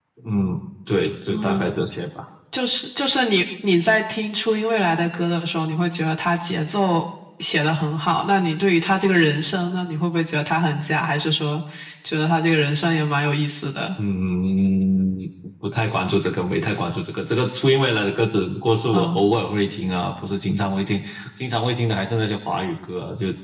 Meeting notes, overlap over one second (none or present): none